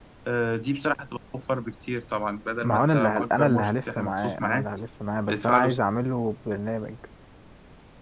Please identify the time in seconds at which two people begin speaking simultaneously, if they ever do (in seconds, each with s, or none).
2.6 s